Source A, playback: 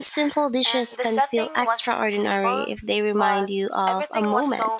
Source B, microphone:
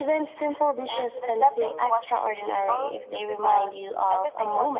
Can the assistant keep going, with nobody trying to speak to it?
Yes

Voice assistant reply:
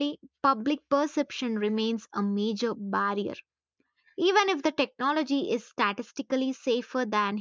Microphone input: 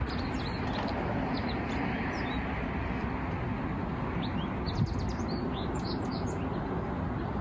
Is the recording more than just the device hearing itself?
No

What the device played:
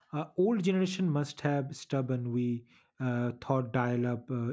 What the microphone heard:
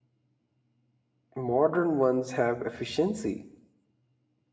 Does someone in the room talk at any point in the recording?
Yes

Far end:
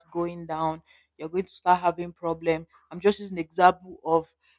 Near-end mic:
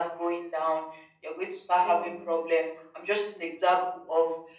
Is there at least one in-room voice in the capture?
Yes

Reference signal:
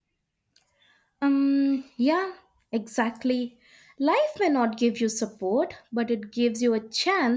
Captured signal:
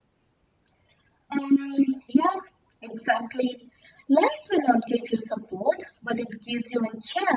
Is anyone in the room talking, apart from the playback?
No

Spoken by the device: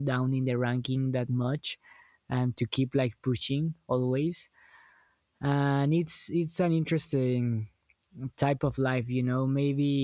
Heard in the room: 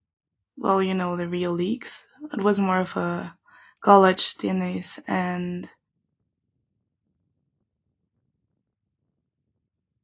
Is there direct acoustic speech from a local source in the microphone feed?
Yes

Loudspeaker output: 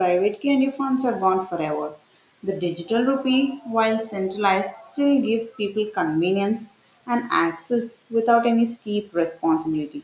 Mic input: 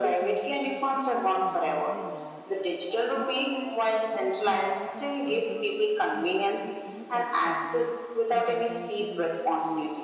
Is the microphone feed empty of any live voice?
No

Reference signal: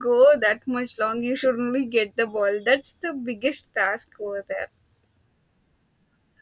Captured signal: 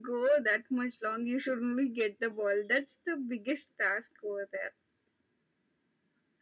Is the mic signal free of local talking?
Yes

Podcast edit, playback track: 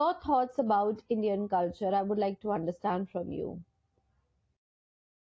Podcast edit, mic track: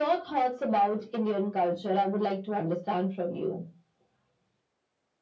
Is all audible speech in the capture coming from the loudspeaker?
Yes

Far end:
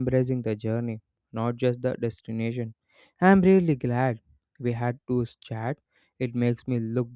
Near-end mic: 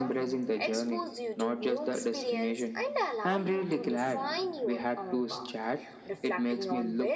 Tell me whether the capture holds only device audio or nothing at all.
No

